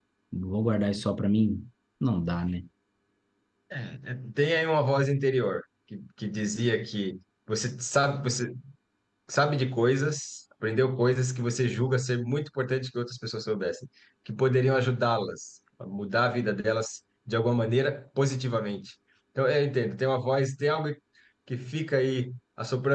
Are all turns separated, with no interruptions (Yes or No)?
Yes